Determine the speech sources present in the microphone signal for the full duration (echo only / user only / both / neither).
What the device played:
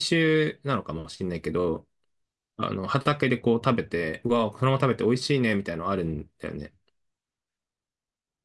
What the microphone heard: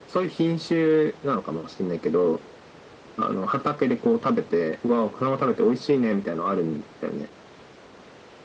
echo only